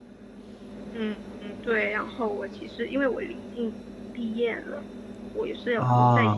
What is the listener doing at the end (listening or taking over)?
listening